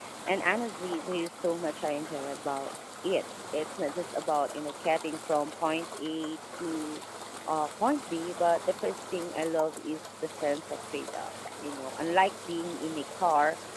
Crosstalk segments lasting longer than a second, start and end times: none

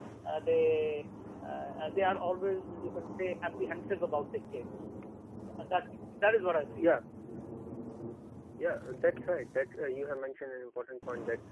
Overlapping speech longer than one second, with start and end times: none

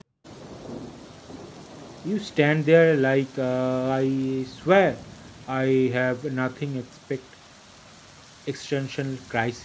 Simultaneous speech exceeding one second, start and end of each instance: none

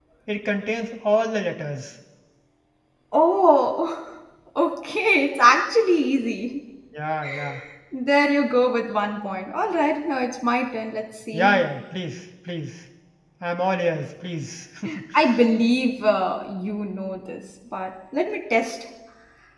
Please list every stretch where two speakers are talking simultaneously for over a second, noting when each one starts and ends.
none

